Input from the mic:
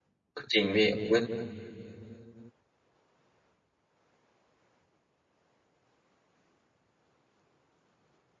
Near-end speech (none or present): present